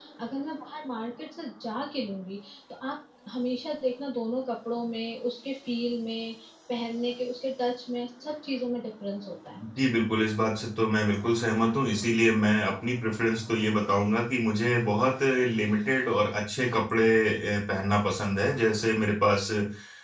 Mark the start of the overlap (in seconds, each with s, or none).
none